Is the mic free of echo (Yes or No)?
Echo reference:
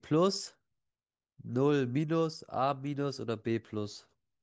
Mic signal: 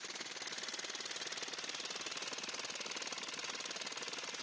Yes